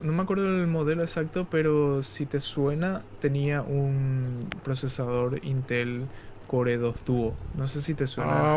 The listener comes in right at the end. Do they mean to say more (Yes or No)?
Yes